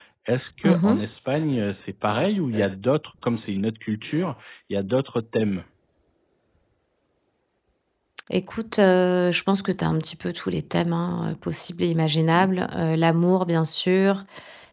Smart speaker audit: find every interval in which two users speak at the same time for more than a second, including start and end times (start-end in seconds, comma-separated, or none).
none